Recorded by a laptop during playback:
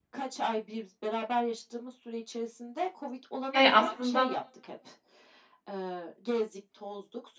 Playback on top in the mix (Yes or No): No